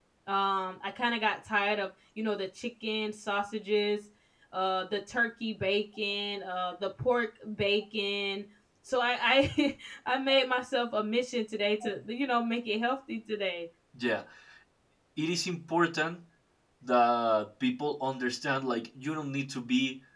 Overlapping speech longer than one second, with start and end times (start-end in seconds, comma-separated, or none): none